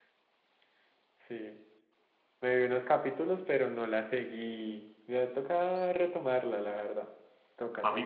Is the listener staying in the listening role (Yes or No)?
No